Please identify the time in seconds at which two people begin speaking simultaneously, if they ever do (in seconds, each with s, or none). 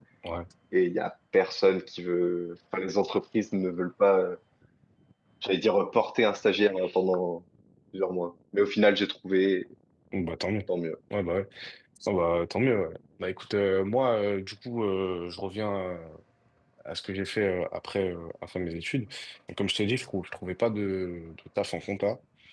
none